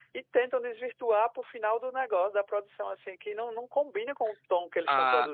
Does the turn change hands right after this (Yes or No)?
Yes